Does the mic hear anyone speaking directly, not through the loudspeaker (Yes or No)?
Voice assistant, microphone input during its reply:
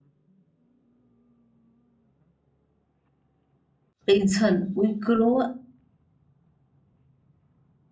Yes